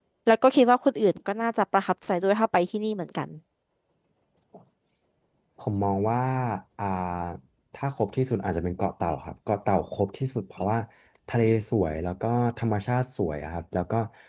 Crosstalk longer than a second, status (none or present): none